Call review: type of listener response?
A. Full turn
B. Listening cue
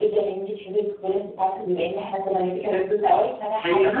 B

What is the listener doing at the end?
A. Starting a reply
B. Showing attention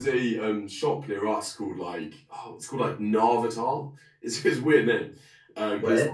B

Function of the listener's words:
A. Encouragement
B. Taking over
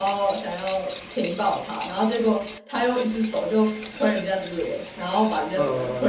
B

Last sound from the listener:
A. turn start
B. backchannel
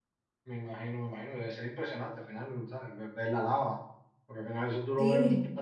B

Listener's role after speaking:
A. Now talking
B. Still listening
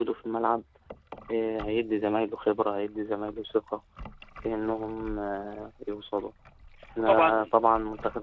B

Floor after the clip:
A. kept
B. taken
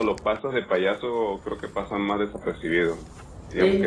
A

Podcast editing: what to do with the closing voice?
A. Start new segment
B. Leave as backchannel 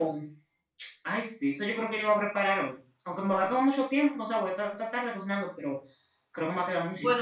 A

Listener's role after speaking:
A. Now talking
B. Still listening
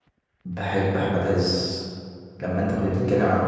B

